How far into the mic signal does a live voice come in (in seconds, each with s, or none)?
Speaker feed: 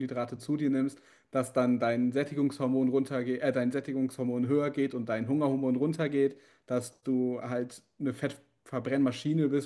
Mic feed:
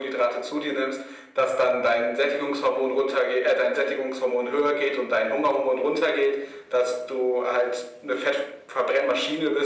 none